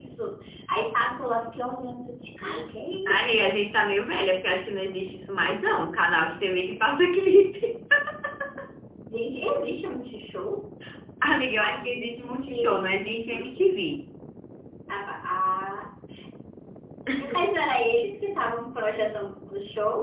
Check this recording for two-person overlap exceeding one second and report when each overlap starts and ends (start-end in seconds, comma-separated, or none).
11.6-13.6